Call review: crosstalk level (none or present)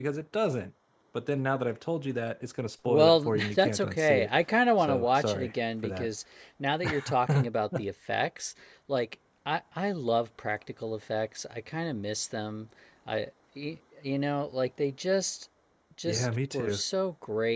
present